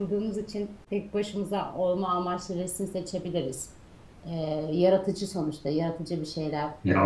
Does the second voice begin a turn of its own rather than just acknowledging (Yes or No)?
Yes